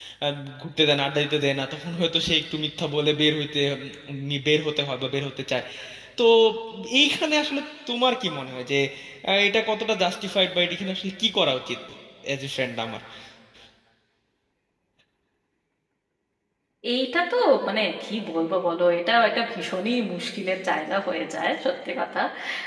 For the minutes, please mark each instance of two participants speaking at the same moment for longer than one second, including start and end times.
none

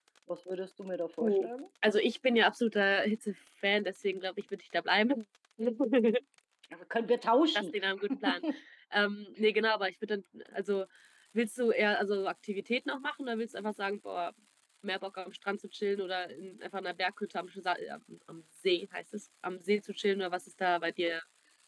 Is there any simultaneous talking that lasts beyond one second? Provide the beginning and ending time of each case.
none

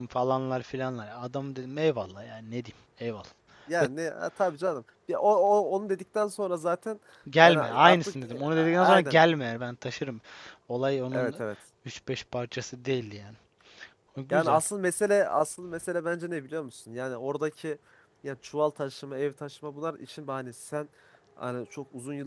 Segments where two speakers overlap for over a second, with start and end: 7.4-9.2

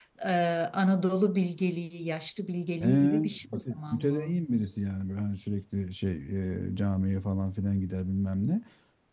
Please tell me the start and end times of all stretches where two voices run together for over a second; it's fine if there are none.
2.8-4.3

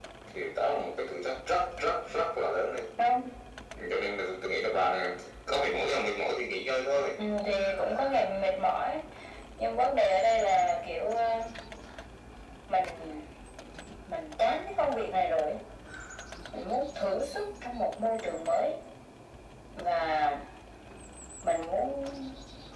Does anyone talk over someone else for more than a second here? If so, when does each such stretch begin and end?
none

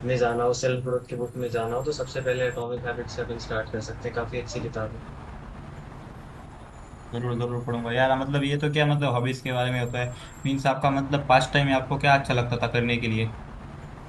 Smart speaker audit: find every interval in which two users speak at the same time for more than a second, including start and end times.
none

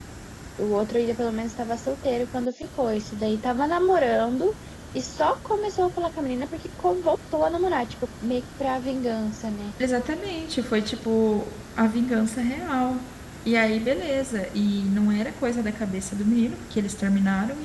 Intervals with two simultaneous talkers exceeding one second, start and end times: none

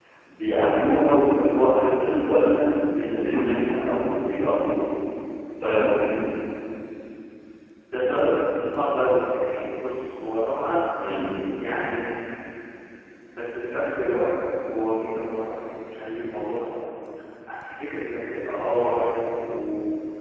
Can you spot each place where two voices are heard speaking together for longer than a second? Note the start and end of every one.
none

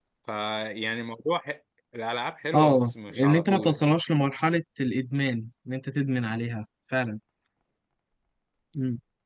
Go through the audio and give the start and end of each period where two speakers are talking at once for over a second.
2.5-3.8

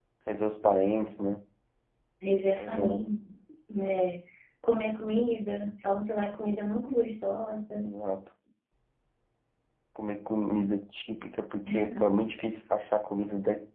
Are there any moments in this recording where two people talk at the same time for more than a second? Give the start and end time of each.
none

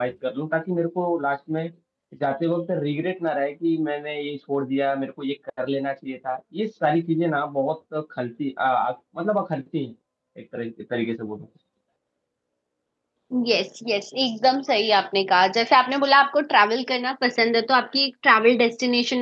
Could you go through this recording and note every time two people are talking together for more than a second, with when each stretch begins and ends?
none

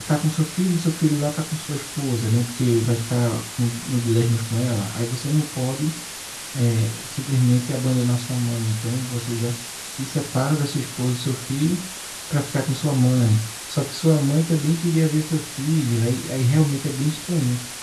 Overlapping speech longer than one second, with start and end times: none

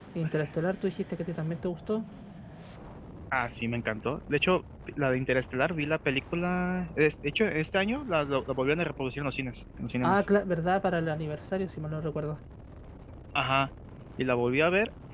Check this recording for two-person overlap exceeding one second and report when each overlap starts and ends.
none

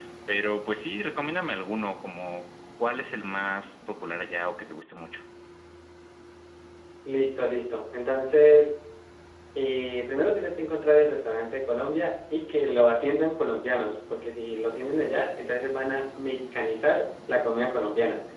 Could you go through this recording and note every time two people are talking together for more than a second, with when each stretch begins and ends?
none

